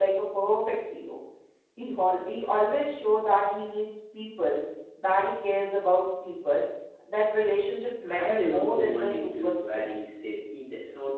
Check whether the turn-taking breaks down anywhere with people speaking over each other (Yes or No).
Yes